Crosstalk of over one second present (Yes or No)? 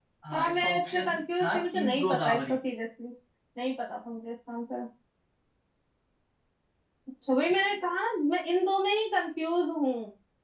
Yes